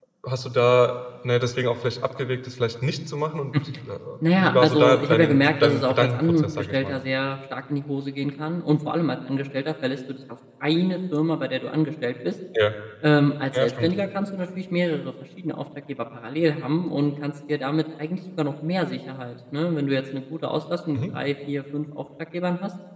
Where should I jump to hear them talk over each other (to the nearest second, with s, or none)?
4 s